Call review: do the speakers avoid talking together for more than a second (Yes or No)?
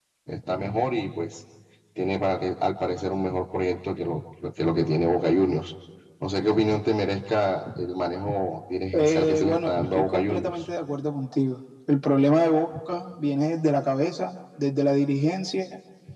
No